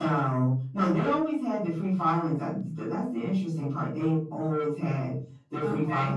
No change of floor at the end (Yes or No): Yes